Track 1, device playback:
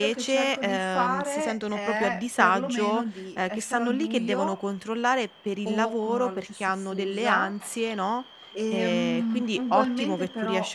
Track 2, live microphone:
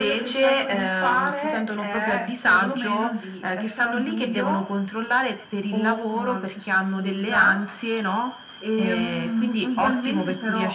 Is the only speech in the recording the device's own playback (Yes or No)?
Yes